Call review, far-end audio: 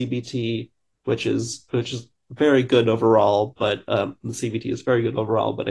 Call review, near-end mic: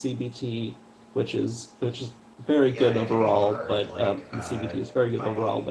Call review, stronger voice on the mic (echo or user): echo